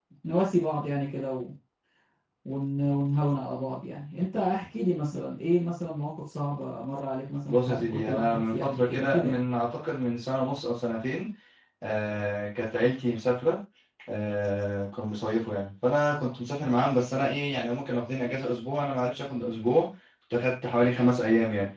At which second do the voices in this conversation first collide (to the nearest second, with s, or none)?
7 s